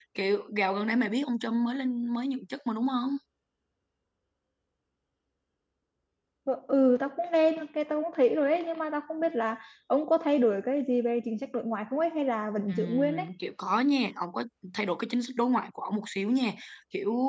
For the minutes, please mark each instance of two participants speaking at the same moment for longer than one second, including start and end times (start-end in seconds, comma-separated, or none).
none